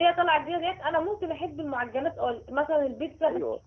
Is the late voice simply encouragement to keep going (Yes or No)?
Yes